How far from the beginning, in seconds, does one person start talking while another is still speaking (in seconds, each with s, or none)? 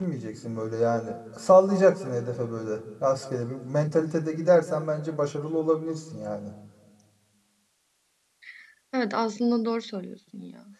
none